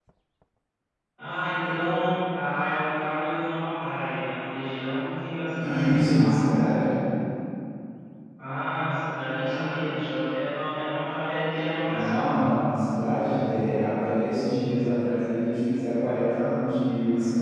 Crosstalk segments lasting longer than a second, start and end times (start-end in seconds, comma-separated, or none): none